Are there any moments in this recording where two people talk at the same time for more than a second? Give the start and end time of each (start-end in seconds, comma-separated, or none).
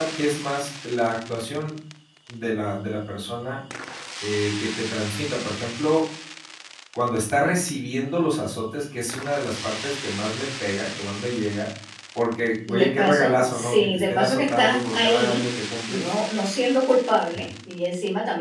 12.7-15.4